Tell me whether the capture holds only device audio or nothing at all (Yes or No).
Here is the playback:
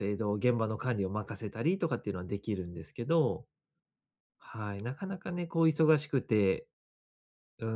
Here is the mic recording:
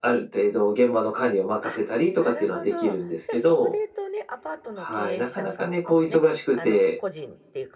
No